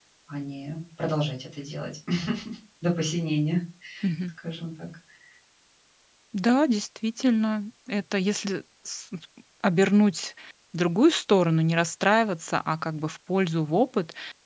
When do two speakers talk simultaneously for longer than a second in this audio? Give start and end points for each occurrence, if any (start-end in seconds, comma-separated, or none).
none